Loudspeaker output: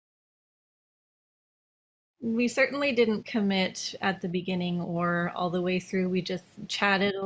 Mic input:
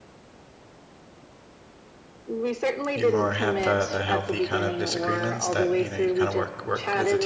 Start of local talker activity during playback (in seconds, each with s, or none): 2.9 s